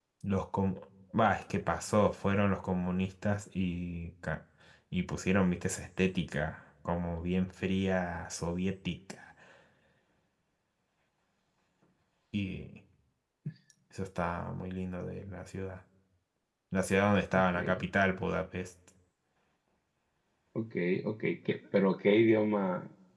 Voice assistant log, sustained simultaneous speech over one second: none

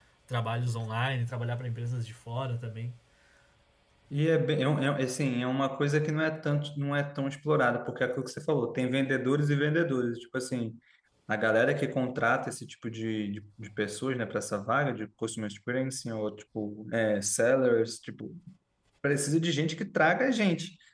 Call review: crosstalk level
none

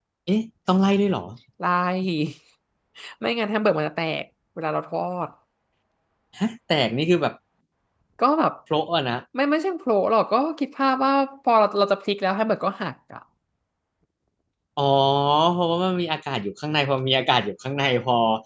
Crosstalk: none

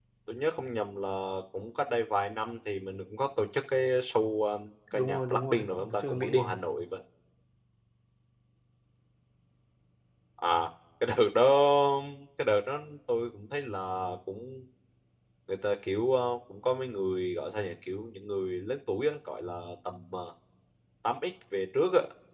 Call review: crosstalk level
present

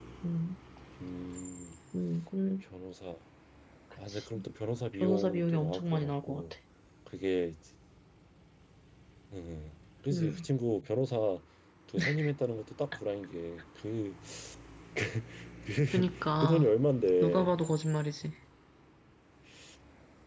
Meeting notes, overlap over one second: present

